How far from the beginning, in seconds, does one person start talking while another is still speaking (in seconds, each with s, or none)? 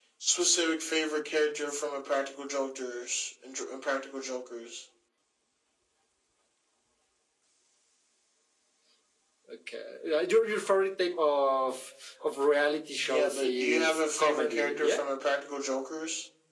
13.1 s